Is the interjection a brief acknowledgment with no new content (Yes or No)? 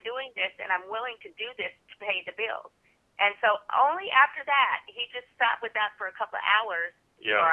Yes